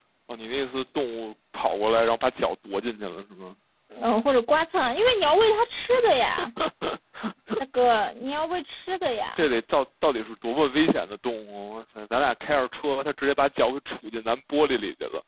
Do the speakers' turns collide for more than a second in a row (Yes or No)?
No